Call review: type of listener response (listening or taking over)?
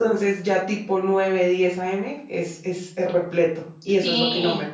taking over